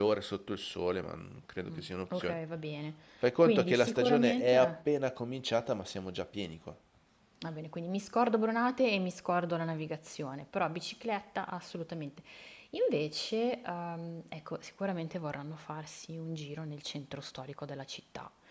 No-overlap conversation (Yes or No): No